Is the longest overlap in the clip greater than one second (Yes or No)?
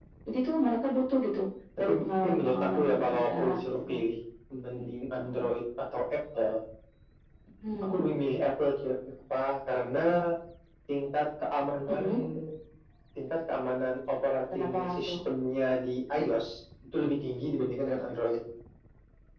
Yes